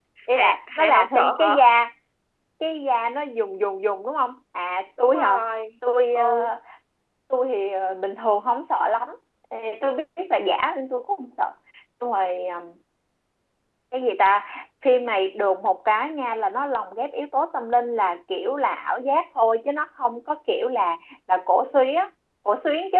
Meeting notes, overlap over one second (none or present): present